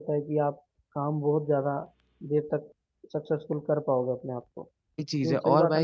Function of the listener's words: taking over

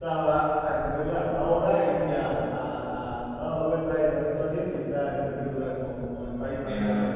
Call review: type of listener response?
taking over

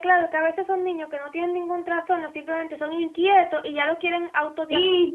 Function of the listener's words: taking over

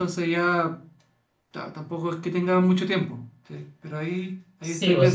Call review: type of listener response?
taking over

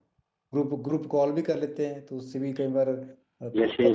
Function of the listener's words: taking over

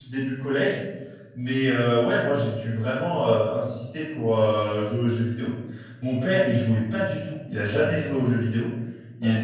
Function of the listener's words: listening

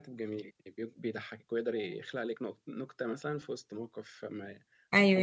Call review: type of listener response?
taking over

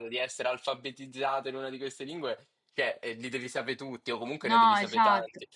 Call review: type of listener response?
taking over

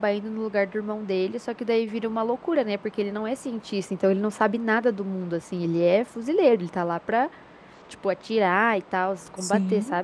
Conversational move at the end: taking over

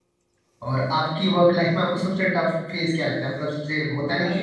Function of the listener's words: taking over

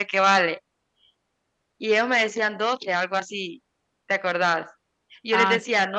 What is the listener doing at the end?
listening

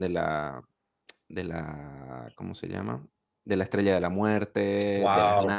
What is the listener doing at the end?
listening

